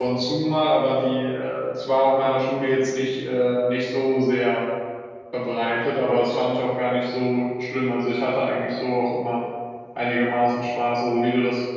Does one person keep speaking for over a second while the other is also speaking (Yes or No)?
No